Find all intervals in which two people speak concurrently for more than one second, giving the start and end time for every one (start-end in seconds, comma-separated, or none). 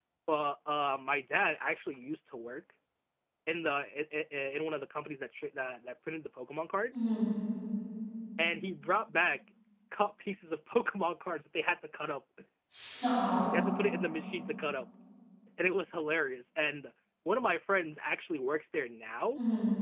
none